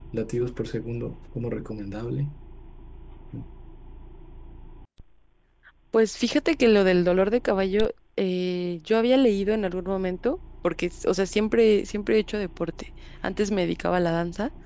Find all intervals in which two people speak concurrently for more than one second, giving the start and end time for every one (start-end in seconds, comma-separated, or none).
none